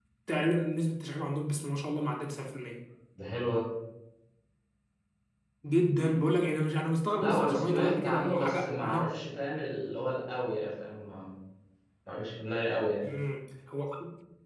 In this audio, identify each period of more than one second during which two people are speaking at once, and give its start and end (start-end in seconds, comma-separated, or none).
7.2-9.0